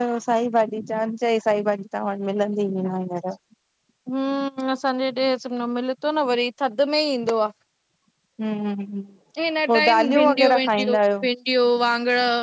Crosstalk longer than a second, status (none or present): present